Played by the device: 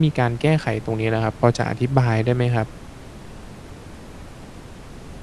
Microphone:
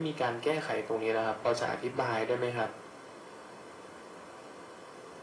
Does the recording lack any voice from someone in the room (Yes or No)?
Yes